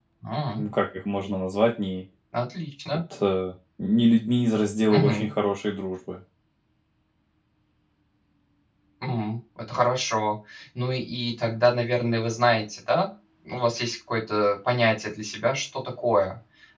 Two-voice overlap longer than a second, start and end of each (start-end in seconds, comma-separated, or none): none